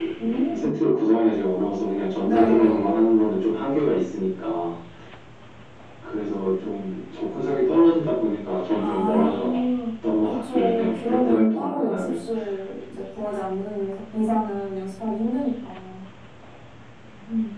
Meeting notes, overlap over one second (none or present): present